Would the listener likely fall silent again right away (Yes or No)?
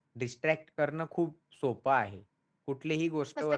Yes